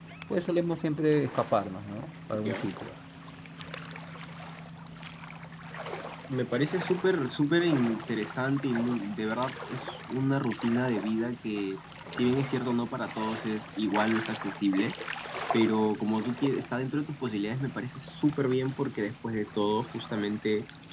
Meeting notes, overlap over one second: none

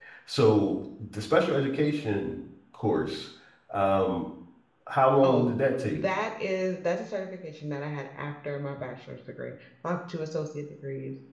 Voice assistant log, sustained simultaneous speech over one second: none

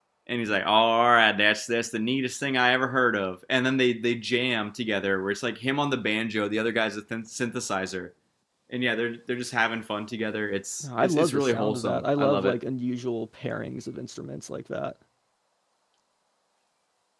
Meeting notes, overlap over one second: present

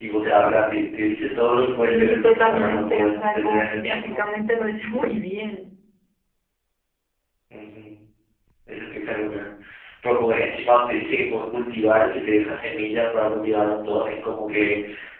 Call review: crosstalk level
present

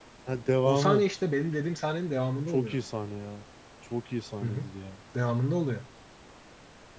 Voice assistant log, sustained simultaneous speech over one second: none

